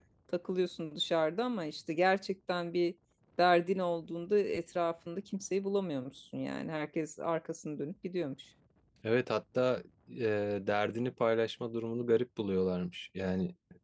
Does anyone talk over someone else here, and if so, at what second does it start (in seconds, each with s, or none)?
none